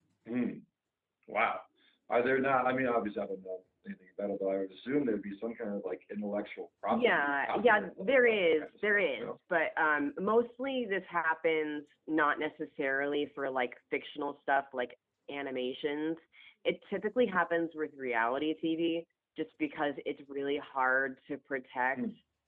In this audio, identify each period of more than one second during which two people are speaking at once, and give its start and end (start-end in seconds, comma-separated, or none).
6.9-9.4